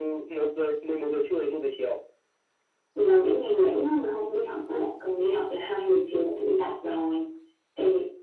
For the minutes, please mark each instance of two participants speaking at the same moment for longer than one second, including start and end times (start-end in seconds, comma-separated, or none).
none